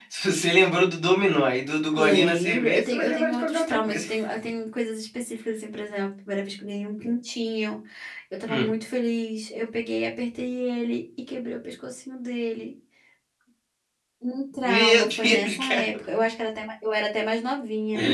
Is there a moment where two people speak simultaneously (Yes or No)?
Yes